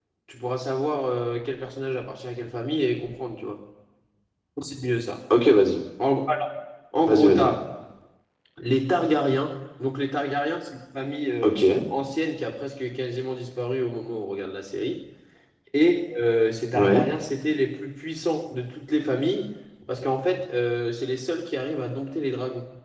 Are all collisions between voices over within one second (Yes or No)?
Yes